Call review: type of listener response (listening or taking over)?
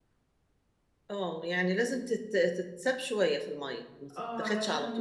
taking over